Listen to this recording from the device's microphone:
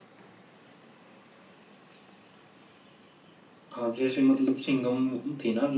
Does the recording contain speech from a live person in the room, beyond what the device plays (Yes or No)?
Yes